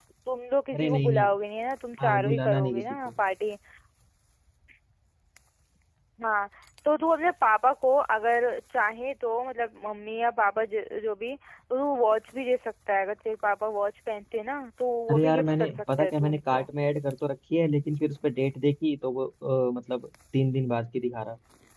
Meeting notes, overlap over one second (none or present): present